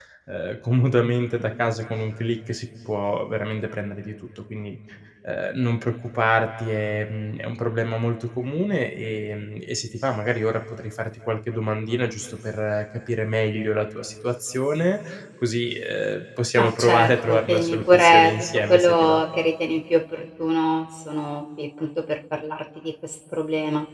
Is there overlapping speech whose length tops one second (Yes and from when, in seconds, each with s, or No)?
Yes, from 16.6 s